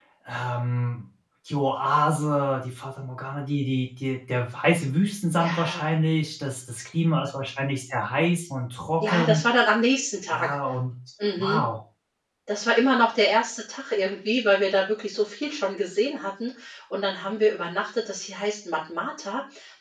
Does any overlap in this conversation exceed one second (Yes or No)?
No